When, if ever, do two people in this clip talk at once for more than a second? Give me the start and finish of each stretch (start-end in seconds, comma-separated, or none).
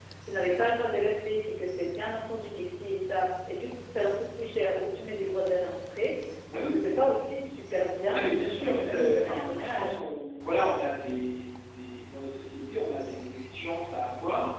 8.1-9.9